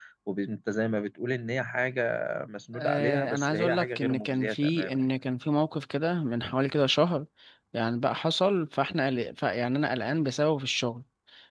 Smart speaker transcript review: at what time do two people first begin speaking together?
3 s

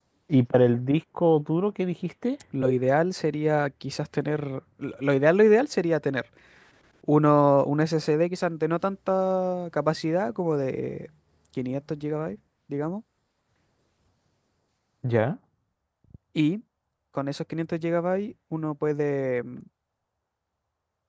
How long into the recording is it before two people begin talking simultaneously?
none

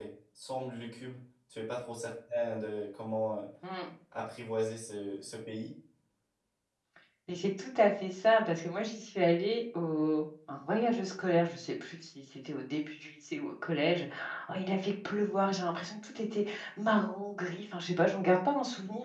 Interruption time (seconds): none

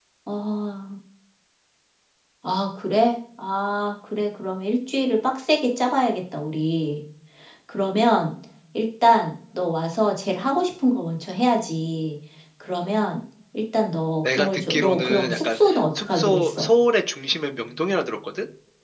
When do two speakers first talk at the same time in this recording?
14 s

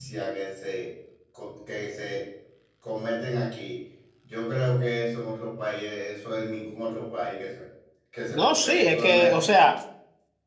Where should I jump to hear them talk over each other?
8 s

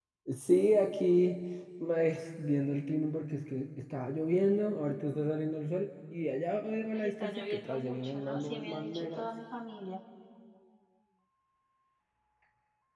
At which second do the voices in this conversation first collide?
7 s

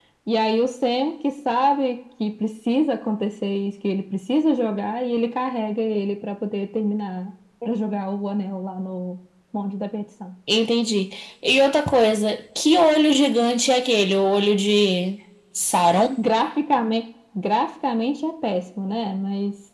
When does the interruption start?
none

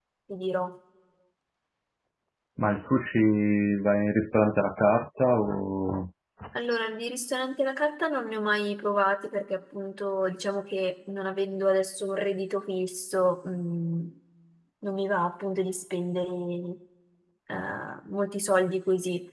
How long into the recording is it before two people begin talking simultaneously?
none

